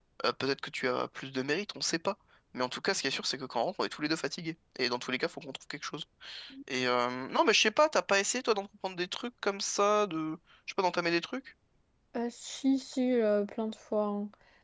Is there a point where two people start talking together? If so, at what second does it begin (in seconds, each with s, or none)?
none